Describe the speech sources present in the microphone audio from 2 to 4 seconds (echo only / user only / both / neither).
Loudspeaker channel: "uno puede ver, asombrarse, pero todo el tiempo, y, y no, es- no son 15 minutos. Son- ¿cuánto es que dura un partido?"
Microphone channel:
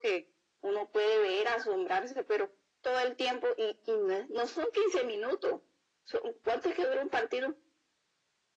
echo only